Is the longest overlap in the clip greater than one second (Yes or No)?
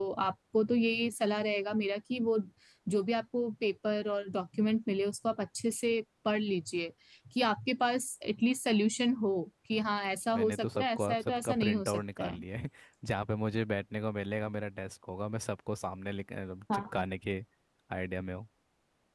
Yes